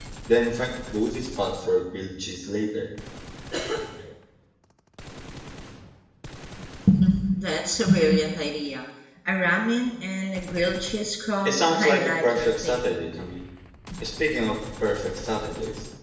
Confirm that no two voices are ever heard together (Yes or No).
No